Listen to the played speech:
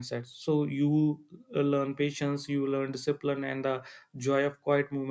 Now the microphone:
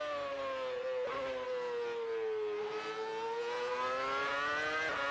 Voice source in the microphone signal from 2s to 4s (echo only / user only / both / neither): neither